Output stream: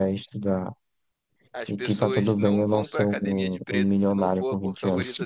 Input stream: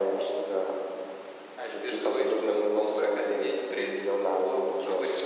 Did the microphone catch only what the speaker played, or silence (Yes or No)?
Yes